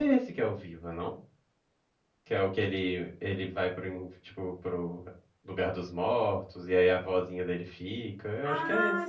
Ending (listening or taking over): taking over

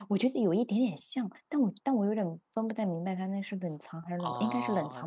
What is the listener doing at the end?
taking over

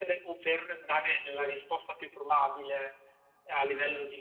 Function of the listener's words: listening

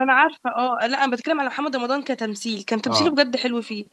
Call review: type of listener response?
listening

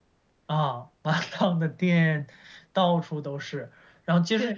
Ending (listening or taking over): listening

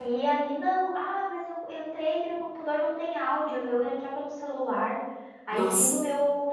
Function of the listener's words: listening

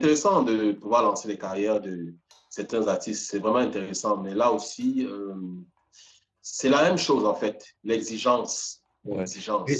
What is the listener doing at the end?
taking over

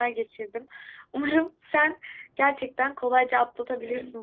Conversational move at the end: listening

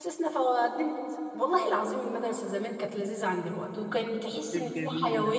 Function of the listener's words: listening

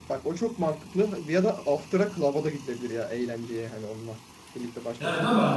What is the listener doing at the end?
taking over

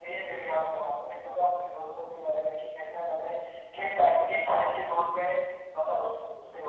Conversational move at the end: taking over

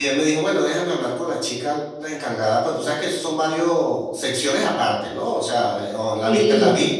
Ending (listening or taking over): listening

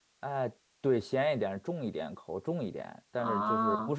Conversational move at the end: listening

